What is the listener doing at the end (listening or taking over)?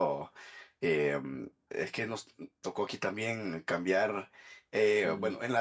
listening